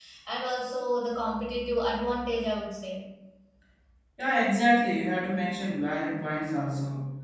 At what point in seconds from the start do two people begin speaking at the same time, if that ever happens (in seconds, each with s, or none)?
none